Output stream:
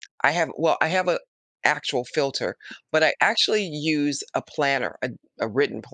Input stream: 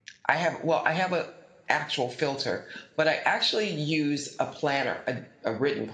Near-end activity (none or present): none